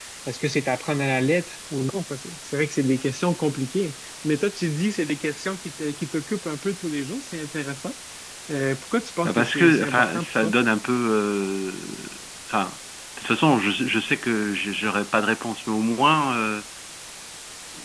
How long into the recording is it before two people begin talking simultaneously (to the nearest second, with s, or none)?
9 s